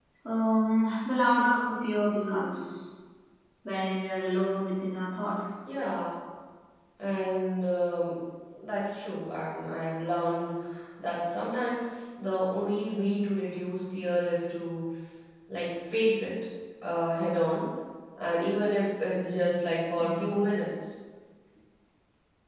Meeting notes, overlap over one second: none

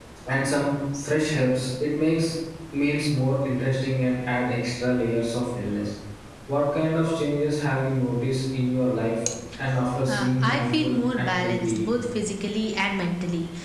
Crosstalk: present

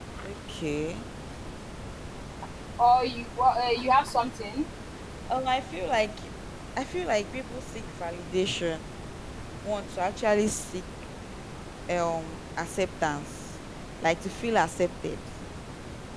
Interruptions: none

